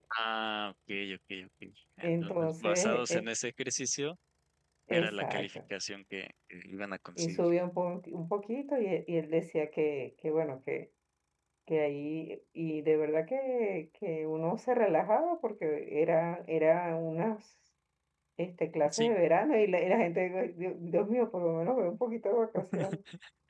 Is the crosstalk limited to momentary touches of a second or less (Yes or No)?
No